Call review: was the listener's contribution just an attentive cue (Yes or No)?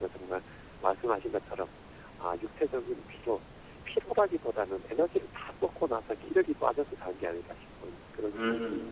No